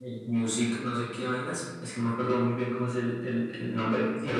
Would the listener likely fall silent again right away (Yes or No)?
No